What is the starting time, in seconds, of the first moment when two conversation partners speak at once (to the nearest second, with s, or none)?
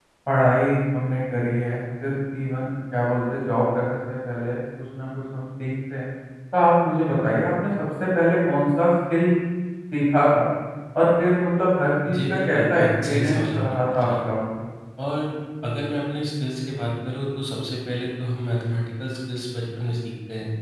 12 s